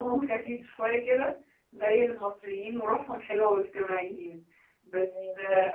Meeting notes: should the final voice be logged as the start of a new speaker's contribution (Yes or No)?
No